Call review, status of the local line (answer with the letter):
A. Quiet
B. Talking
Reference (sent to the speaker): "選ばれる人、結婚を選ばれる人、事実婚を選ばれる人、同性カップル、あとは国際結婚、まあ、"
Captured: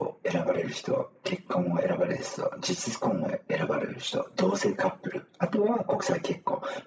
A